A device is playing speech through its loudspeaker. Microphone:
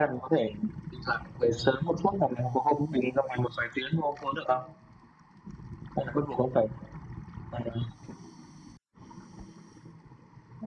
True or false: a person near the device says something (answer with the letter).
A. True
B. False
B